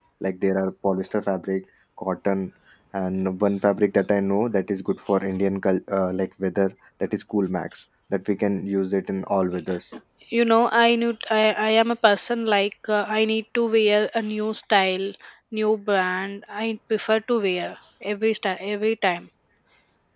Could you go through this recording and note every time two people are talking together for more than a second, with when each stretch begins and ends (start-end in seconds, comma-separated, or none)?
none